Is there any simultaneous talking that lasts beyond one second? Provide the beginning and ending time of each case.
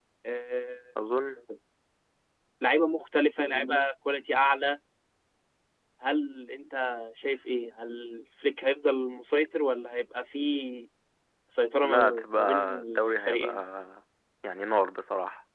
11.8-13.5

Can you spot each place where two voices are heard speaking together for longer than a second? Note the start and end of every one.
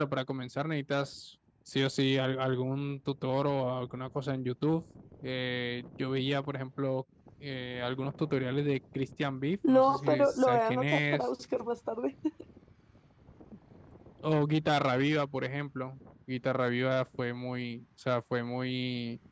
9.7-11.2

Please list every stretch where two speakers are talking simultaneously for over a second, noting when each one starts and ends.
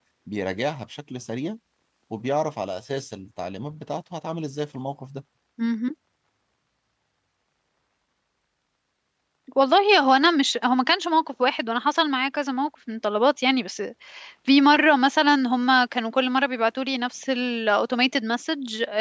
none

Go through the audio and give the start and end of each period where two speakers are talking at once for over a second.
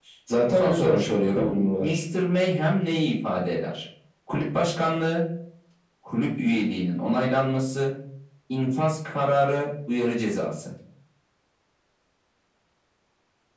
0.5-2.0

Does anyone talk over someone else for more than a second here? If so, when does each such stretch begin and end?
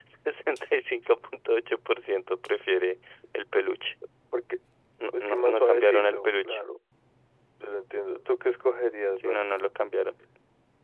5.2-6.6

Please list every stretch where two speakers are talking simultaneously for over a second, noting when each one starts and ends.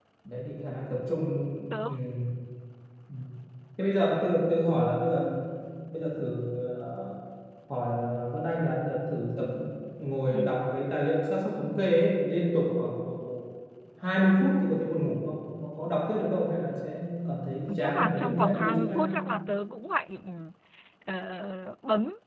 17.8-19.0

